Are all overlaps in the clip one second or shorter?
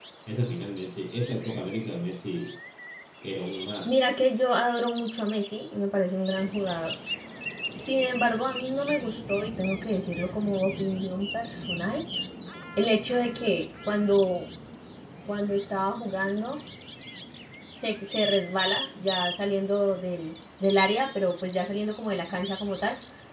Yes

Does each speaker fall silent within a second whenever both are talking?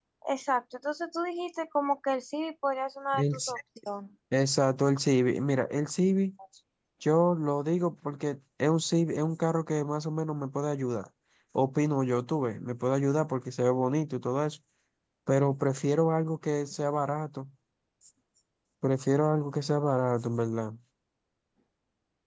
Yes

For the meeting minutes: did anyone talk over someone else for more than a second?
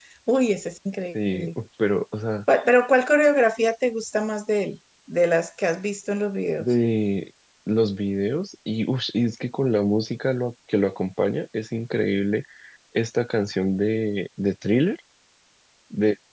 No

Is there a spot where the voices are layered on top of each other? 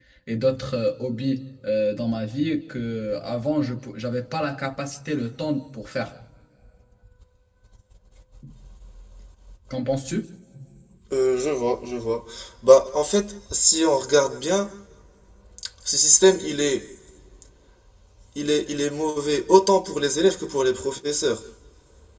No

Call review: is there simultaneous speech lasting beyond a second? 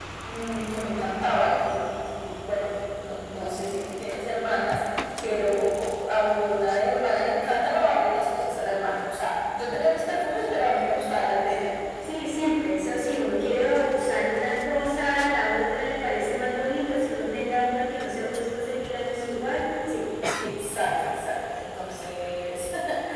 No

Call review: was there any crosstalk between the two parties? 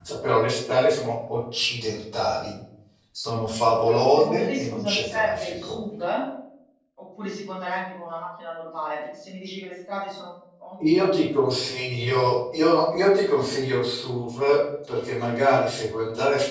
Yes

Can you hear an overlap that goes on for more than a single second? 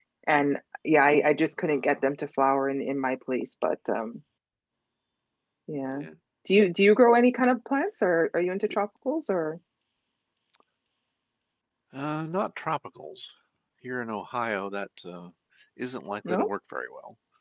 No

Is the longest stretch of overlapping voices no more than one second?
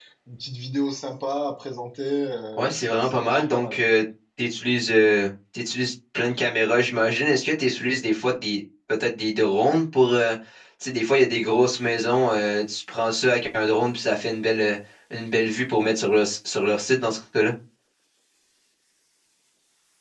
No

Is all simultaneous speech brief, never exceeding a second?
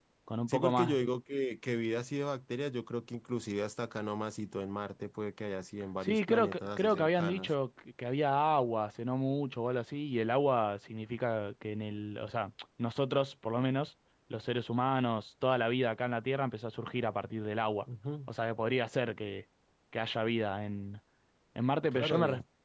No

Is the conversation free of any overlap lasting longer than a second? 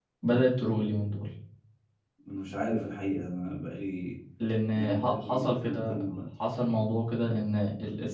No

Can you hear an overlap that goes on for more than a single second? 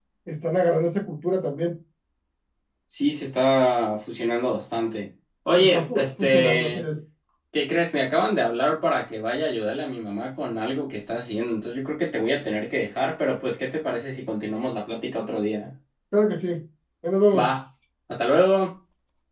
Yes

